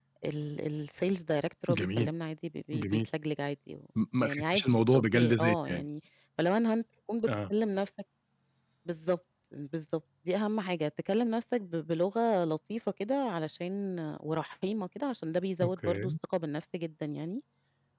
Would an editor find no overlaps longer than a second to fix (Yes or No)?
No